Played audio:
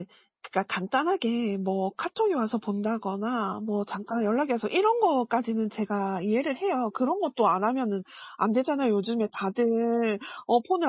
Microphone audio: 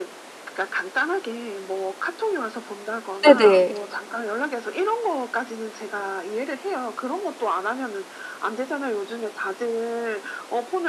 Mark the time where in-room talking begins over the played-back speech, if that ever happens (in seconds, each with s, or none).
3.2 s